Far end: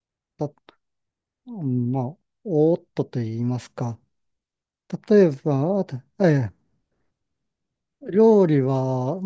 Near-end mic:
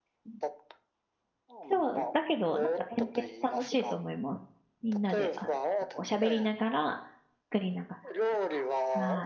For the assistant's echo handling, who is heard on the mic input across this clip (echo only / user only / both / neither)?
both